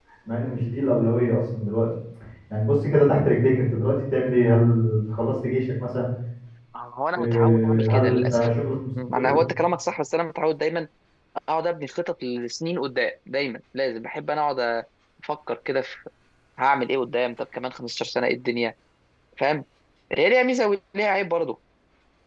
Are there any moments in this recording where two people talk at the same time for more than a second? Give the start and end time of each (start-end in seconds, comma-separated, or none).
7.2-8.5